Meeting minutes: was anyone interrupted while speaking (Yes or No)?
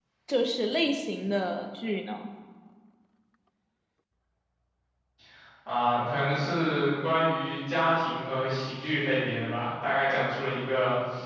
No